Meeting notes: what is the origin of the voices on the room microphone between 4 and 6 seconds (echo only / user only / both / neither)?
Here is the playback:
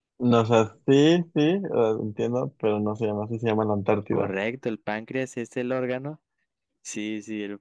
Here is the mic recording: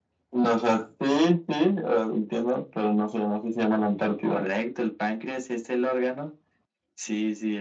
echo only